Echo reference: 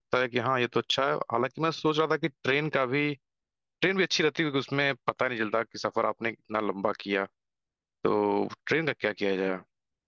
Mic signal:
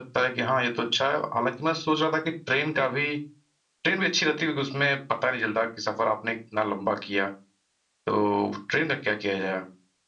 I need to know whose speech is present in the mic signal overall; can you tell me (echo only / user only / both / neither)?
echo only